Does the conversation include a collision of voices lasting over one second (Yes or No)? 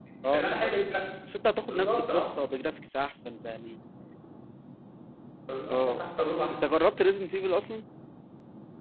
No